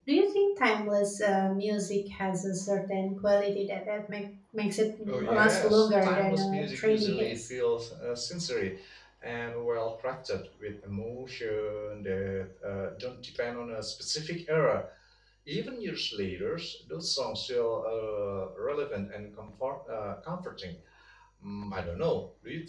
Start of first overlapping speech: 5.1 s

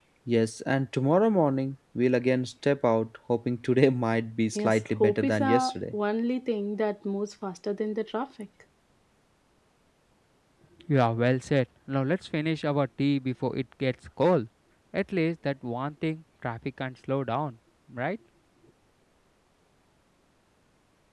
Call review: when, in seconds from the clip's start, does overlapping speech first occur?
4.6 s

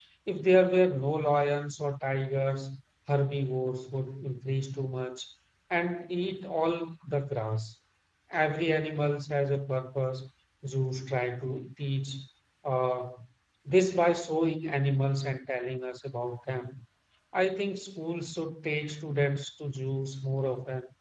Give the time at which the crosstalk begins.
none

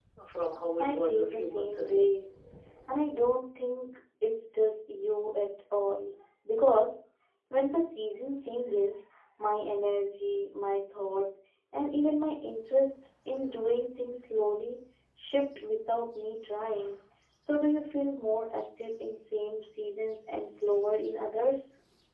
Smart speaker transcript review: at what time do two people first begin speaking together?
0.8 s

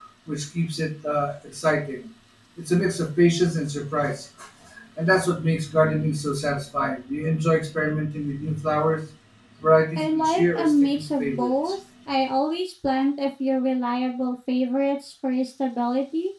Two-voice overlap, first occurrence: 10.0 s

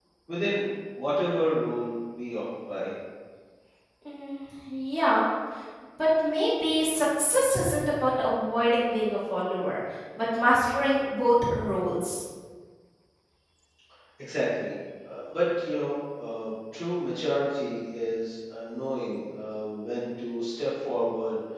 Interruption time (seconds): none

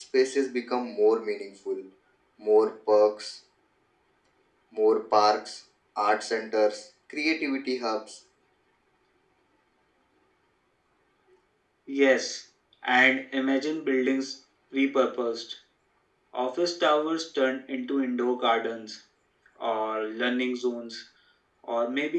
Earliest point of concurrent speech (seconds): none

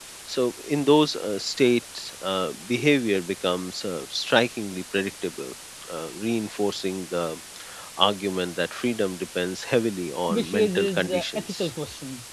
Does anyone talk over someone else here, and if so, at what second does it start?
10.3 s

